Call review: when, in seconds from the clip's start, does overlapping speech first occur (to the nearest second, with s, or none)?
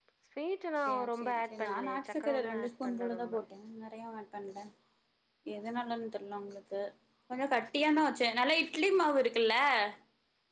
1 s